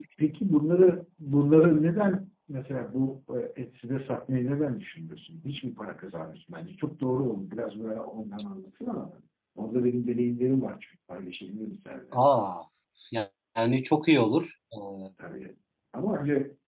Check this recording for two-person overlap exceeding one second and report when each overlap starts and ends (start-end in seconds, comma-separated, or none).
none